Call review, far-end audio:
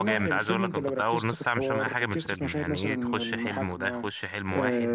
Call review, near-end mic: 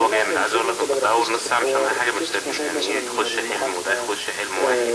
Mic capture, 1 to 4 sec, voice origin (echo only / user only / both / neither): echo only